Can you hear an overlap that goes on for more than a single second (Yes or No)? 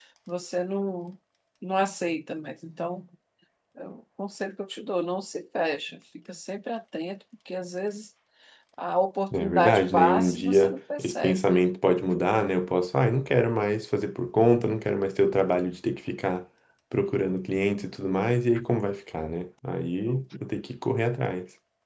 Yes